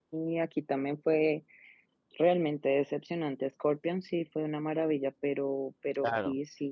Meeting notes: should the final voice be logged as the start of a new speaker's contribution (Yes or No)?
No